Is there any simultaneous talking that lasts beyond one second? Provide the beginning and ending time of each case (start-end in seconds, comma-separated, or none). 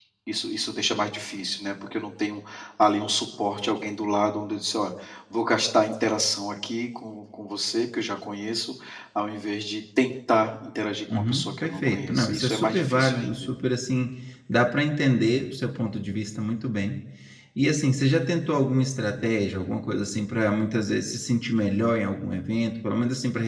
11.1-13.5